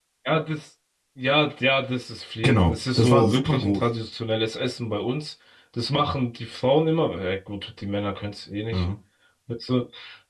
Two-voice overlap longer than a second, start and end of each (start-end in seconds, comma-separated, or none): 2.4-3.8